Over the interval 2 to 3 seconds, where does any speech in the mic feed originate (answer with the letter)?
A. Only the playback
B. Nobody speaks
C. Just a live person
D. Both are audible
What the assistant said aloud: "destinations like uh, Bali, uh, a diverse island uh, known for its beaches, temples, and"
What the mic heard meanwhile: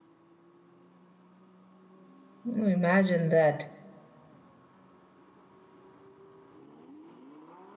C